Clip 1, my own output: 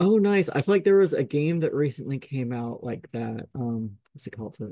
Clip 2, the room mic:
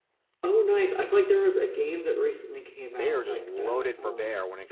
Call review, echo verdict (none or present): present